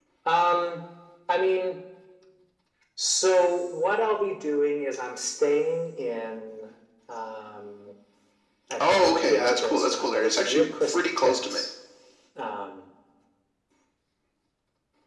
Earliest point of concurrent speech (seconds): 8.8 s

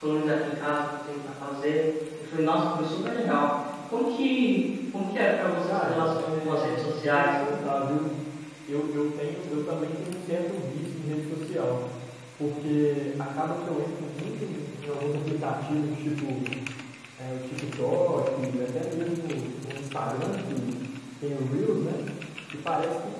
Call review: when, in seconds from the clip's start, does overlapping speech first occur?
5.7 s

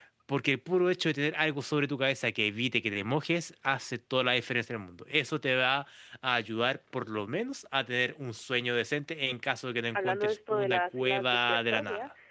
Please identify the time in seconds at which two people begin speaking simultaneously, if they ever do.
10.0 s

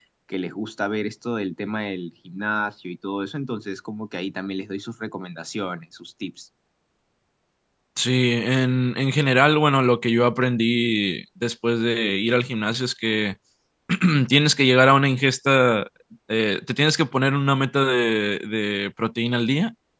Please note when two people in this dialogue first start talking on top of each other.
none

